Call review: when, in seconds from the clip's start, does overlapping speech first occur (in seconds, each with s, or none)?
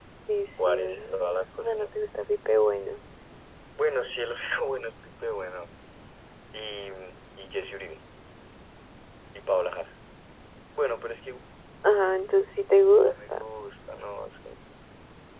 0.7 s